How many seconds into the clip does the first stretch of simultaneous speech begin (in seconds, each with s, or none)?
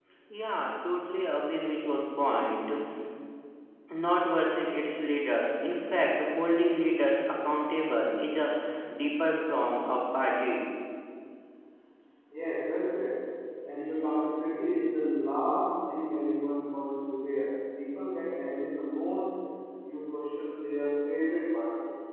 none